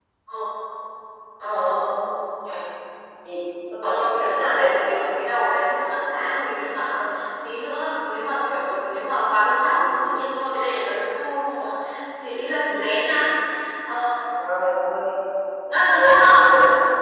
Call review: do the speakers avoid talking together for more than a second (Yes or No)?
No